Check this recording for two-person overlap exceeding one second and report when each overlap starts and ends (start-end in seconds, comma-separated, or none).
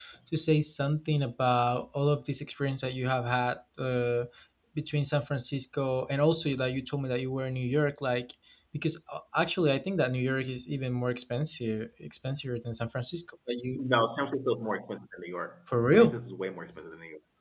none